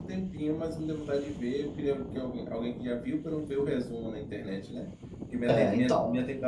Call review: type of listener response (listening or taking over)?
listening